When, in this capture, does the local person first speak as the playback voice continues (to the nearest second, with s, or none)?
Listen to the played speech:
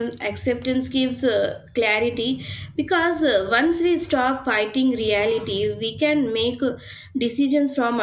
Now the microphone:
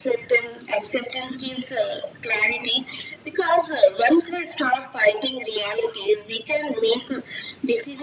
none